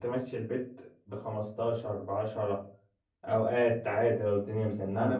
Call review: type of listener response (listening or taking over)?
taking over